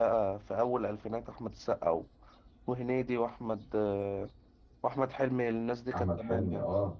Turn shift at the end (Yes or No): Yes